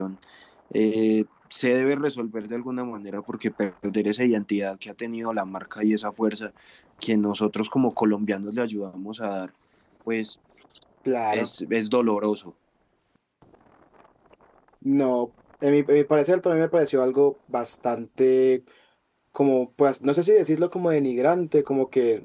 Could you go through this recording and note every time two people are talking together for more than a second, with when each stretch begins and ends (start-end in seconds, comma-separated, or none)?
none